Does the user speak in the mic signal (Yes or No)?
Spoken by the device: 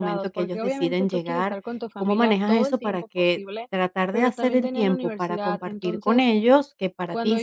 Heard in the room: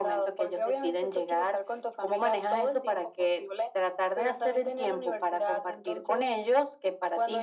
No